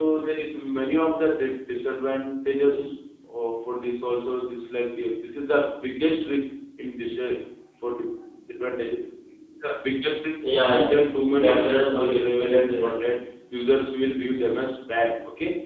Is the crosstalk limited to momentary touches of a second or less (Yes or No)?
No